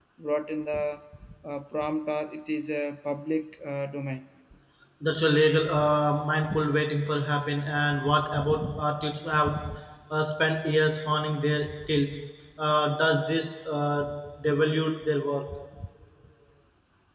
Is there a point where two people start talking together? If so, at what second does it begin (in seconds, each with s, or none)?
none